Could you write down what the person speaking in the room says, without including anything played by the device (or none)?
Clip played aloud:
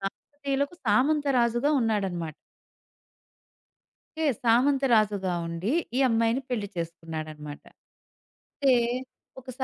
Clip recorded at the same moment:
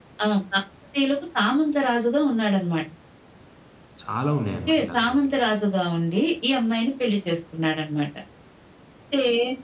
చాలా ఉన్నాయన్నమాట ఇలాగ మనకి.